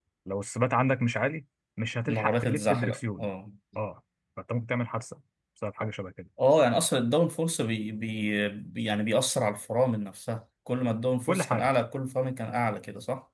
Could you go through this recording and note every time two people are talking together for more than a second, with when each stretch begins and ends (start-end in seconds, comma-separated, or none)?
2.1-3.3